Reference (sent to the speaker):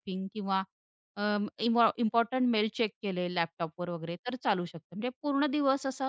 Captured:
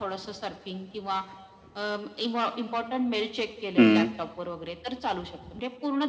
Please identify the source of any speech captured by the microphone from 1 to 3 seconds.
echo only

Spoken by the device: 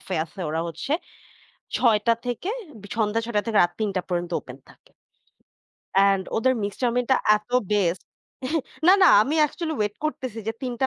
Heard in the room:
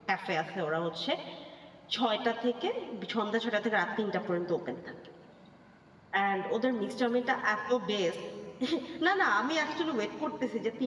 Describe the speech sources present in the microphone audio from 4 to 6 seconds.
echo only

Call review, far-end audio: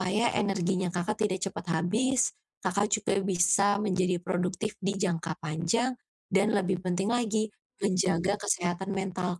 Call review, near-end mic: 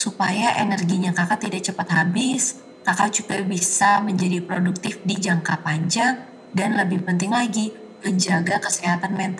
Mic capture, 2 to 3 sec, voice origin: echo only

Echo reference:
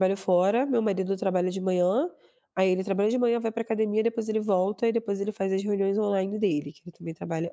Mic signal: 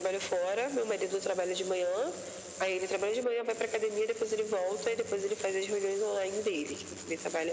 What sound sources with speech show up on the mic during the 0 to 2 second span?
echo only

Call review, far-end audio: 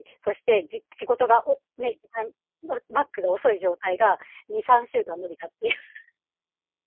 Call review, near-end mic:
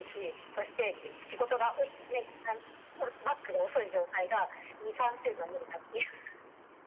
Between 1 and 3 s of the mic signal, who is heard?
echo only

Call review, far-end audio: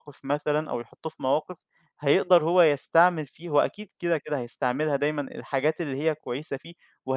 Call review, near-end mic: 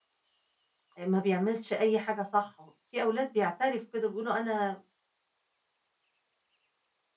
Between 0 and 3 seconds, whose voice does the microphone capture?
user only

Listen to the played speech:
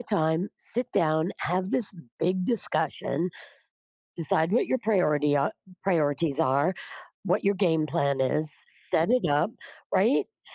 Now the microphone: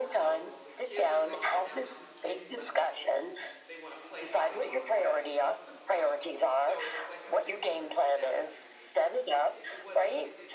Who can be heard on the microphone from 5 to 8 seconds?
both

